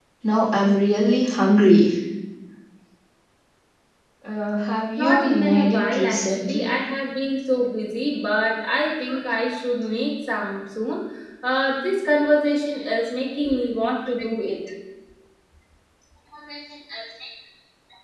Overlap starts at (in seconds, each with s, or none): 5.0 s